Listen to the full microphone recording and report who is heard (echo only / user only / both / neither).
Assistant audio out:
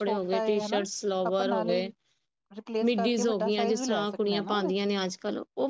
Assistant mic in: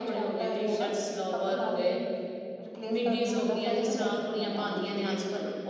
echo only